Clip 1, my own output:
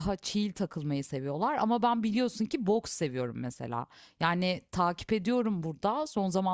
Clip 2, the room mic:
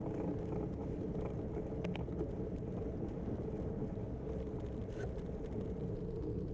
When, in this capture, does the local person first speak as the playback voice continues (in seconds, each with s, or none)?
none